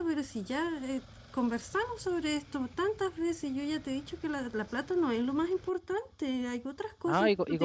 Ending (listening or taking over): taking over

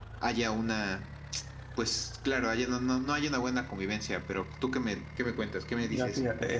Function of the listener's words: taking over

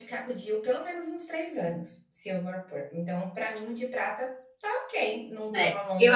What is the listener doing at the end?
taking over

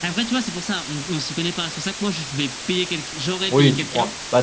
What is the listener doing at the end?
taking over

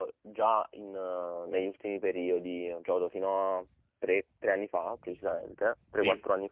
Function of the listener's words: listening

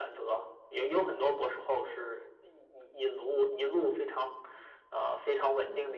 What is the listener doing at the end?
listening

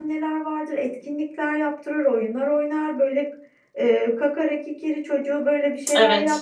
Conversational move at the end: listening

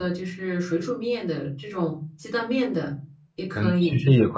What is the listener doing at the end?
taking over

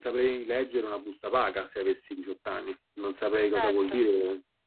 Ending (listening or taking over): listening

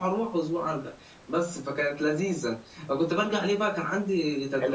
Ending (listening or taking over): taking over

